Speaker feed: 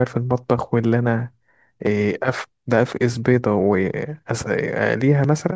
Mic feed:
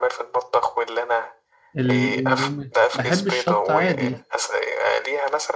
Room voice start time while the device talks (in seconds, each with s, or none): 1.8 s